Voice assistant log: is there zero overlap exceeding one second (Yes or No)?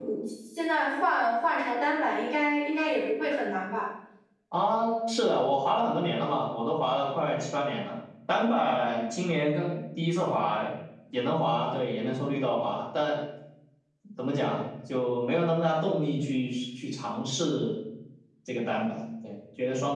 Yes